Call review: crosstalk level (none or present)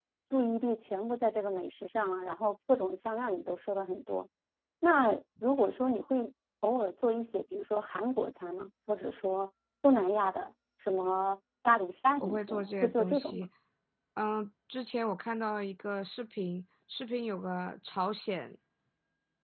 present